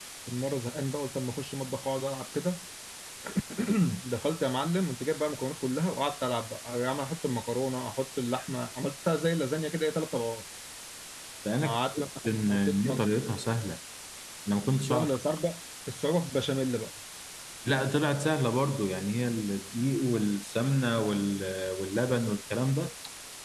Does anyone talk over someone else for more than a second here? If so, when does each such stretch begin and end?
11.6-13.0

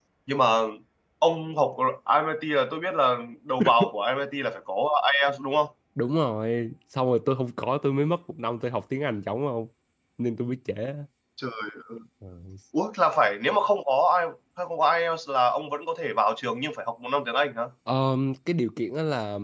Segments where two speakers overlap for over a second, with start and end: none

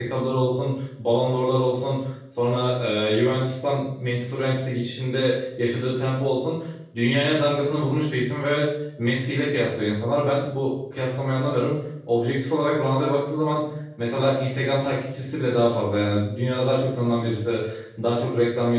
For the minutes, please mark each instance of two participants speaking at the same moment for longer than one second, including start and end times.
none

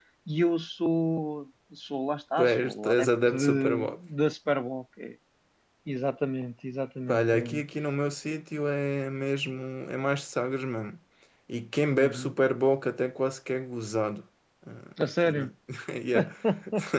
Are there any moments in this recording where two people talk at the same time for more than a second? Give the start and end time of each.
2.4-4.0

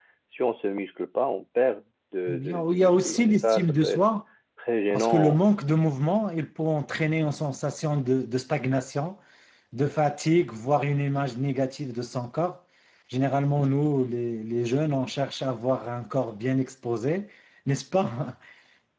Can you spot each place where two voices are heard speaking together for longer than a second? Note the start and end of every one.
2.3-4.0

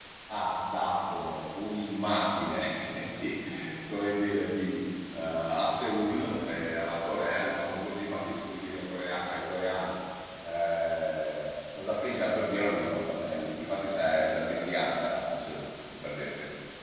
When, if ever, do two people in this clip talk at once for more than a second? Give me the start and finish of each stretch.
none

